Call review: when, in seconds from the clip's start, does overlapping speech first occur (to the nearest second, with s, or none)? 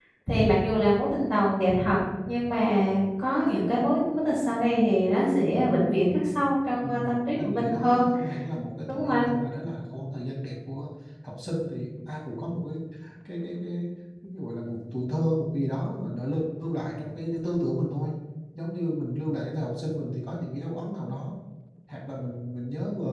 7 s